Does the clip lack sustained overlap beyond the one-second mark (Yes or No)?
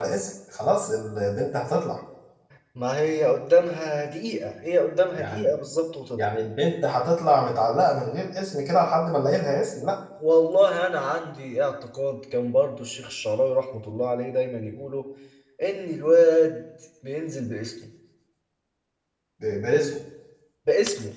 Yes